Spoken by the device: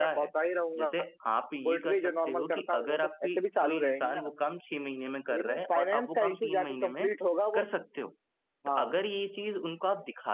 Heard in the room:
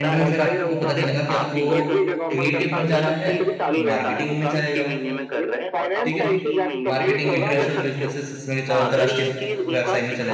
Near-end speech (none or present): present